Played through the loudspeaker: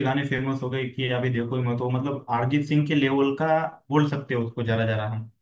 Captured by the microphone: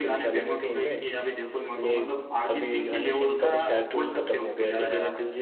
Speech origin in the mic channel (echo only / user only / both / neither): both